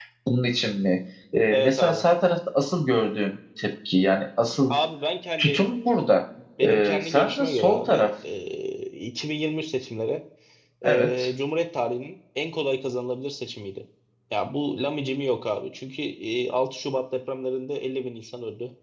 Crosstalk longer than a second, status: present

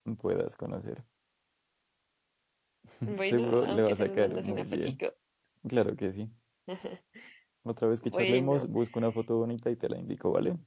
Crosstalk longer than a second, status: present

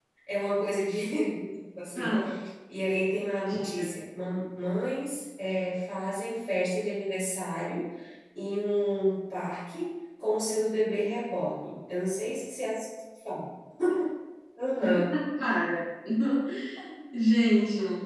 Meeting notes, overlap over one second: none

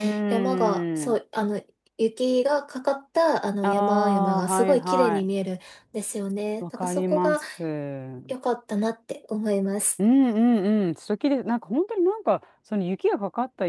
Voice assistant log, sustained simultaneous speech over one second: present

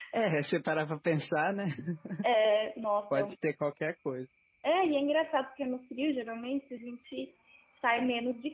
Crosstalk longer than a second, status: none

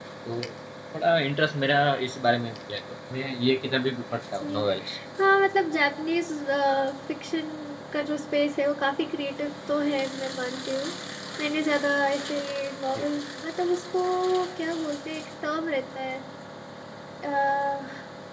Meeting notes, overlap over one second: none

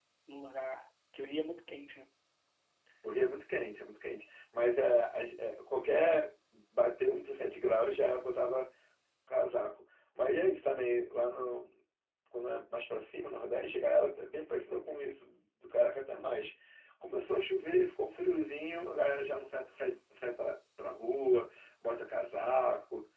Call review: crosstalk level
none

